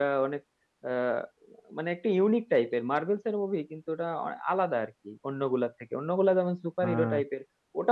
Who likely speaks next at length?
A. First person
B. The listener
A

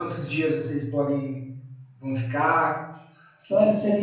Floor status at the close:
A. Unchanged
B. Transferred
B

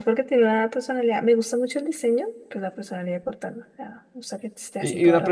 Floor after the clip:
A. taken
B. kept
A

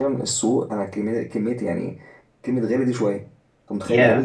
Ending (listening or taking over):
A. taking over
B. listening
B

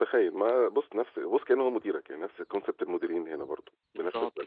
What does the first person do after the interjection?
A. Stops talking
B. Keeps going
A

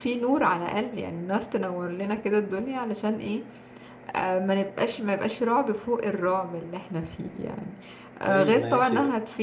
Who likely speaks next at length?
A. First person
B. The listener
A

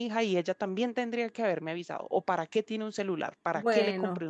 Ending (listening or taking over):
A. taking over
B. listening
A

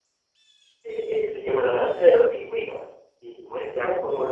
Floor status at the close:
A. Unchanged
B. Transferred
A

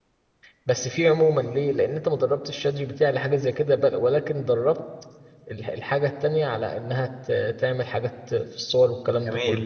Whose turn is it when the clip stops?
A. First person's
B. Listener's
B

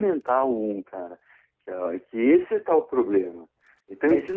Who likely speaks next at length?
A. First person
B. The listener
A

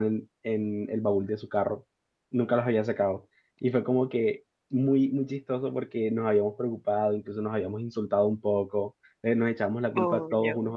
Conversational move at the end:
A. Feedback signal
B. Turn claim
A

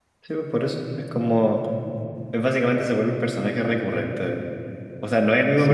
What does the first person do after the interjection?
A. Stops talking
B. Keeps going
B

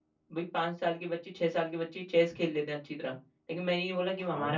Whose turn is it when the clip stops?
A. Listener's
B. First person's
B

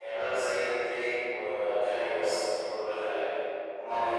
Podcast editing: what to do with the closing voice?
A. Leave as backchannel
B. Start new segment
A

